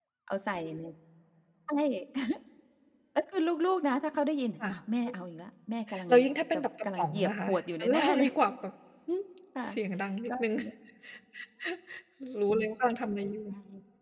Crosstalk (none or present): present